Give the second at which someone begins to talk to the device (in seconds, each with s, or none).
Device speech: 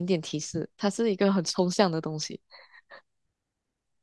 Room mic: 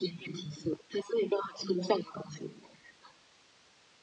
none